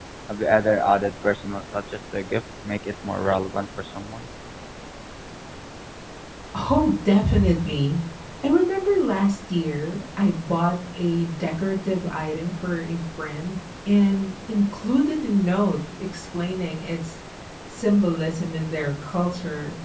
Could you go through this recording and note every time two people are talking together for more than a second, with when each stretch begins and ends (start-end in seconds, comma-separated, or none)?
none